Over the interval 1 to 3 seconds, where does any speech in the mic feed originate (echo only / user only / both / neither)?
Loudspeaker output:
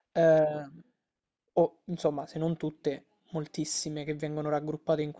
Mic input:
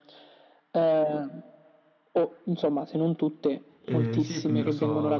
echo only